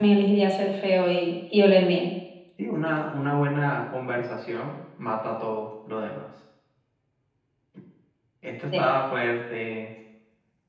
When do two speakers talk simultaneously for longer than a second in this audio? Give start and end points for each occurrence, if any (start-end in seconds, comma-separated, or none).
none